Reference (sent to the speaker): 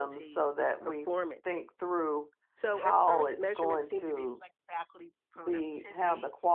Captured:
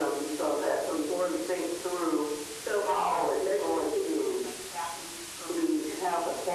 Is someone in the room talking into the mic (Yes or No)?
No